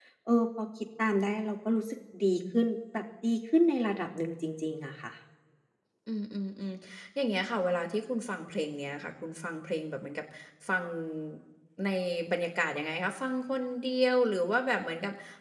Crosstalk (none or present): none